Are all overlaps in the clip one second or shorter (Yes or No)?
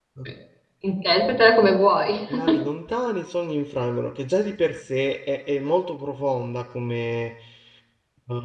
Yes